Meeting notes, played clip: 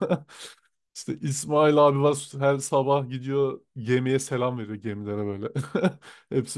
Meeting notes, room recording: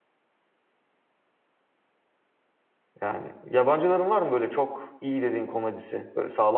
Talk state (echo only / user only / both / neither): user only